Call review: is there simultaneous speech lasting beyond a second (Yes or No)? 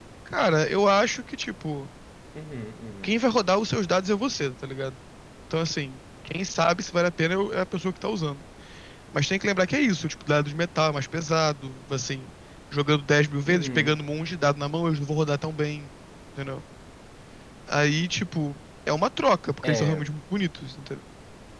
No